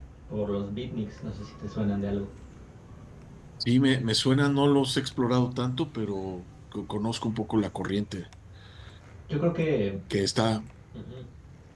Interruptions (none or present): none